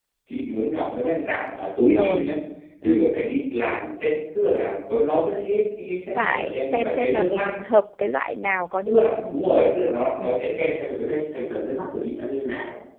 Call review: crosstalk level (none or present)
present